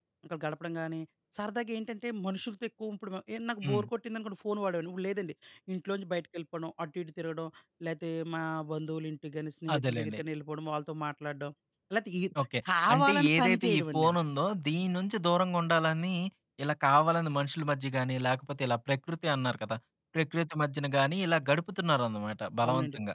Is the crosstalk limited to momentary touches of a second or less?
No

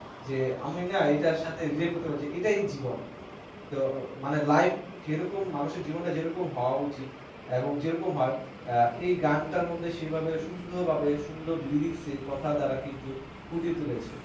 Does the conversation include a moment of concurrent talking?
No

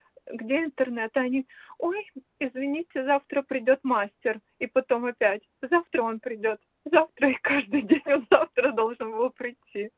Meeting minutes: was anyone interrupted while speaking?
No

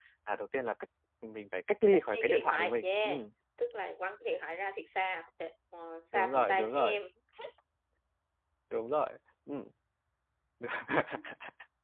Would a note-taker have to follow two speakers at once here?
Yes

